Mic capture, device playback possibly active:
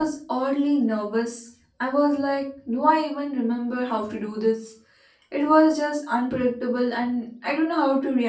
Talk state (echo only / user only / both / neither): user only